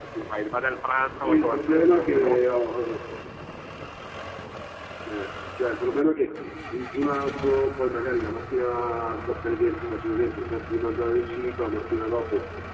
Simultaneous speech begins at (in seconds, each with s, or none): 1.2 s